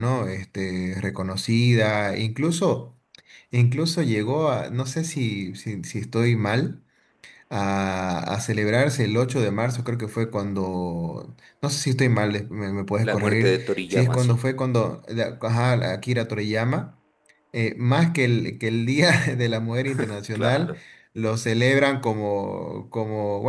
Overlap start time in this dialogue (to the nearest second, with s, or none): 13 s